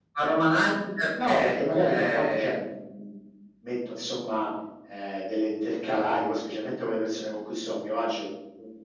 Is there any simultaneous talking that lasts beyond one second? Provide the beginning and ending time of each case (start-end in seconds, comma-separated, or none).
1.2-2.5